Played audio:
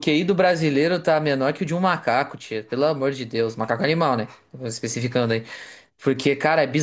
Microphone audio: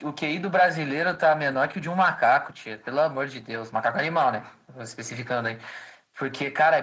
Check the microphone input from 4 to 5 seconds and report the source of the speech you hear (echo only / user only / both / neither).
echo only